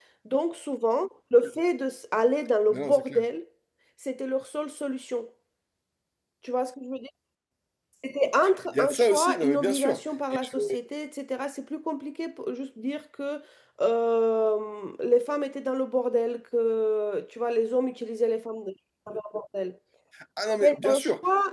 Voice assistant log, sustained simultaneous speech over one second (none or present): present